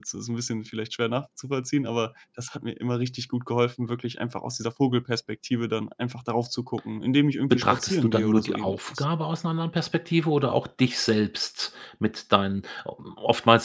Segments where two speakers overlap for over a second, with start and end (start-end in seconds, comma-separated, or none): 7.5-9.0